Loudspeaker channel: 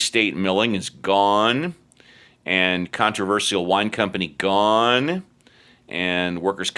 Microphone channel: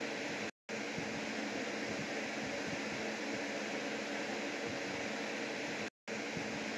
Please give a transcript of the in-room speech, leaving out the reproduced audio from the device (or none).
none